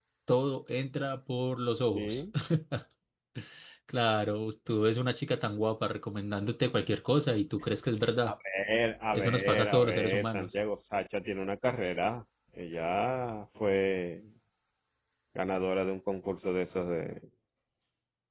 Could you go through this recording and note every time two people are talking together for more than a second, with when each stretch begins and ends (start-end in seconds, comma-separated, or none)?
9.1-10.5